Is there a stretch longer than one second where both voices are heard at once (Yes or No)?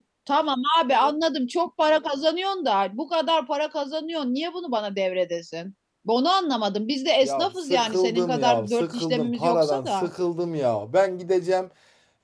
Yes